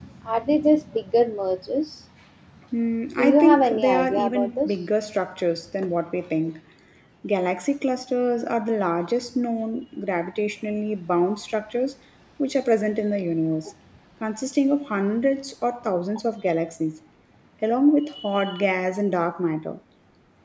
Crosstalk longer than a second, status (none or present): present